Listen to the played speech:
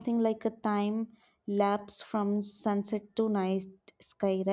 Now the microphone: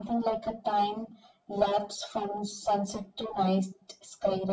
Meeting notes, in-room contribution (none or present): none